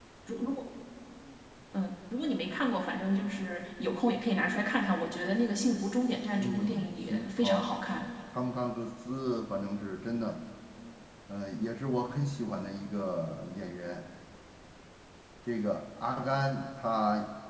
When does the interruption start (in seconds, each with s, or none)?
6.4 s